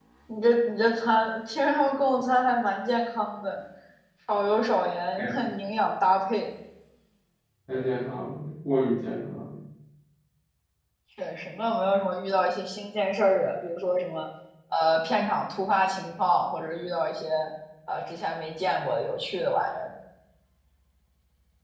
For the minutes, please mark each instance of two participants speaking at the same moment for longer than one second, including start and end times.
none

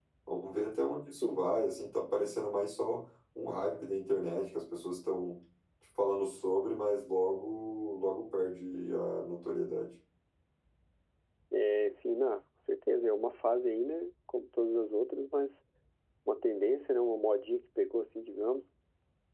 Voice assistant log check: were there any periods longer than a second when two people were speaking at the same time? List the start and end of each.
none

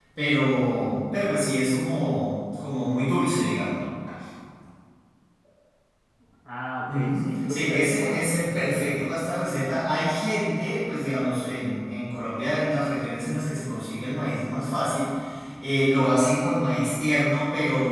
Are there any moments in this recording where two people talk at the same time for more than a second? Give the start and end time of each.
6.9-9.0

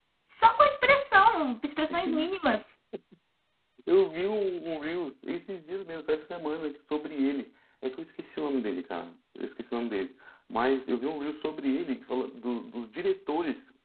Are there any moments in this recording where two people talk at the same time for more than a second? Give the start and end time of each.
none

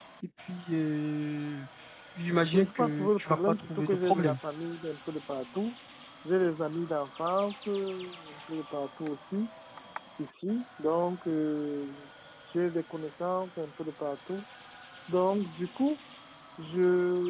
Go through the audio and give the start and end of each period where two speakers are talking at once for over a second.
2.5-4.3

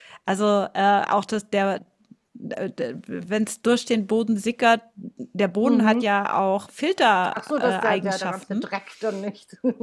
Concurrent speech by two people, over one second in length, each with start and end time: 7.3-8.6

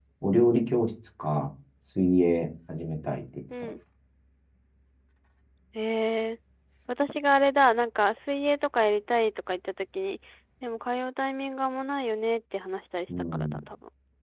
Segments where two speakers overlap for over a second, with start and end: none

